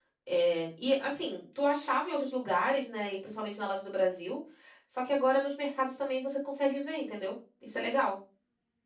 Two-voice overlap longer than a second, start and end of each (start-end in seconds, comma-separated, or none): none